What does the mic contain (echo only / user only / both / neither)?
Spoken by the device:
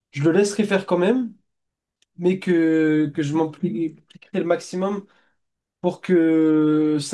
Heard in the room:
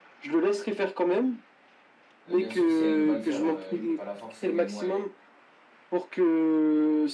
both